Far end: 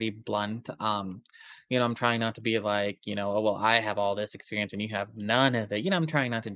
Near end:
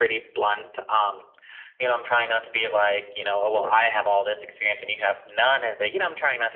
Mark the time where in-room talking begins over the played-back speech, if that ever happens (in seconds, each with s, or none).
3.2 s